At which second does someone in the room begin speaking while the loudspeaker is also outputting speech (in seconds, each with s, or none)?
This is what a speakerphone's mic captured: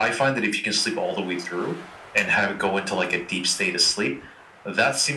none